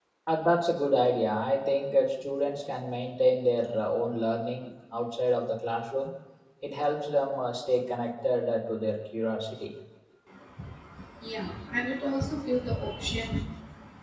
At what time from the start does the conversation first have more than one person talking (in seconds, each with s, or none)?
none